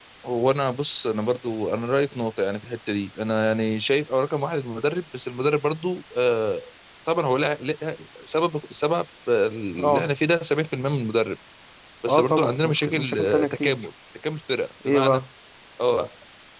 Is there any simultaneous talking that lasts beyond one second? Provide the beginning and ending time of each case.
12.1-13.8

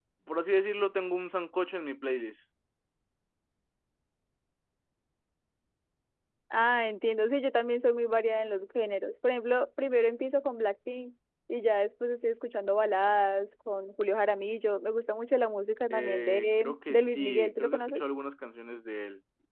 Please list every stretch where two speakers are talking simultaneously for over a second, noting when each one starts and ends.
15.9-18.1

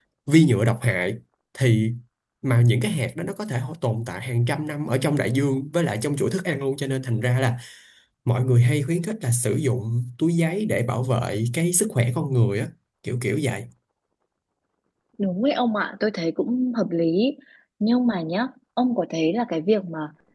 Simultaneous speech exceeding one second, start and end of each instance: none

